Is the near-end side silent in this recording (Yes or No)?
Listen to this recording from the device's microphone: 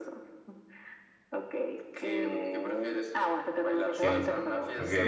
No